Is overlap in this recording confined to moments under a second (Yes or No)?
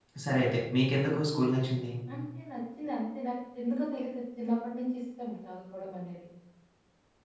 Yes